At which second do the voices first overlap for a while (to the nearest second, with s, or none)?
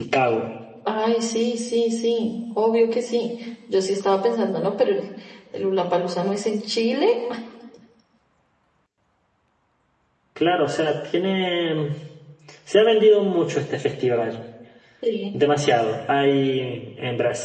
none